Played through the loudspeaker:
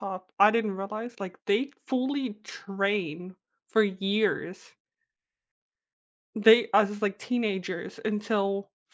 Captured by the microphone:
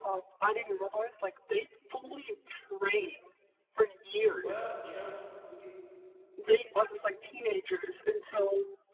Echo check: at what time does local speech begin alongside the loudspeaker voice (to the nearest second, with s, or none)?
4 s